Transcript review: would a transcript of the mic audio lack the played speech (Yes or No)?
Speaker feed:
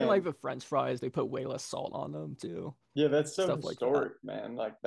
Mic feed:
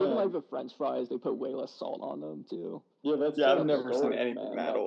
No